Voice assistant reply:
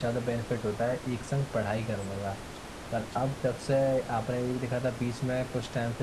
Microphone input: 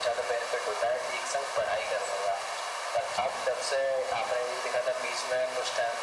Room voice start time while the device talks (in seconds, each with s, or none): none